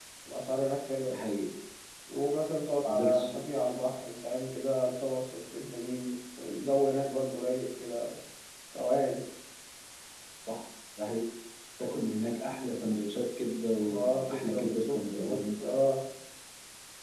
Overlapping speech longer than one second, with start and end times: 13.9-15.5

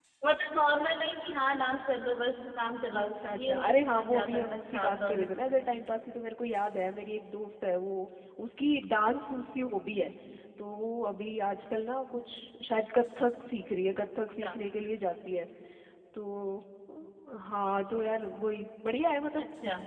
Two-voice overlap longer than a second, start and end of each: 3.0-5.2

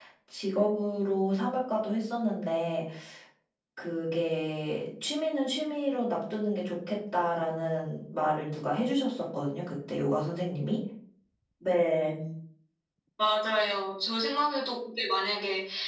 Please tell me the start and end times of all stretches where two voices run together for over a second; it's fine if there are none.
none

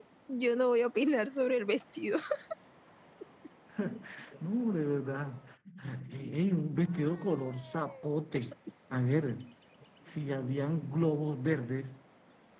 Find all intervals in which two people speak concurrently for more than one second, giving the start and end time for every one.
none

